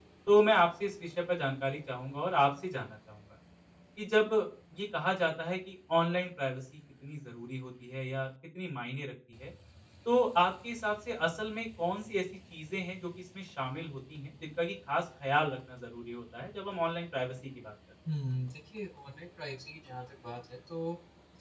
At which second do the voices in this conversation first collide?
none

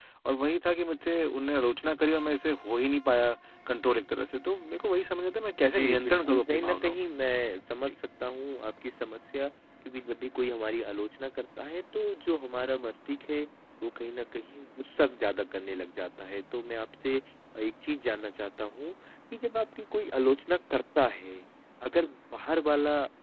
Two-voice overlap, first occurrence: 5.6 s

